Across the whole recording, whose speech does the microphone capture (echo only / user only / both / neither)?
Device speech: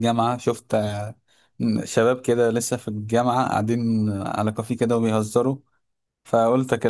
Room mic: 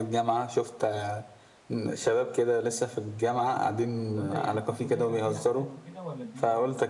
both